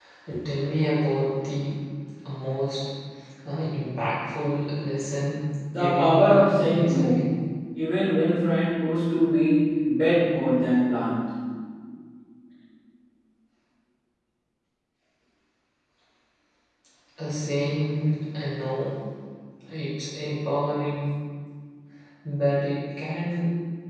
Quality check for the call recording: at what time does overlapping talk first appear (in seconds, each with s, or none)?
5.7 s